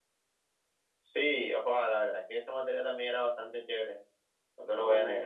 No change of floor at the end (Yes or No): No